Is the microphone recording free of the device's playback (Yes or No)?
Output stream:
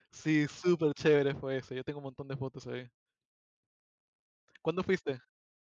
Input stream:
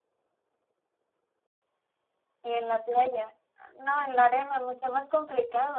Yes